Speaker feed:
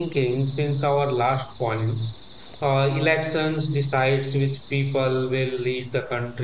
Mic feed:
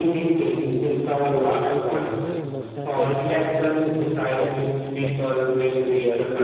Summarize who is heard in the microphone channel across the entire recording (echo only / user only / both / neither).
both